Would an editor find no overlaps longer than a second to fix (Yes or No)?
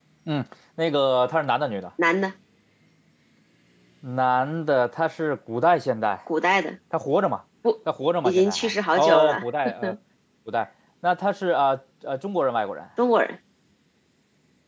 No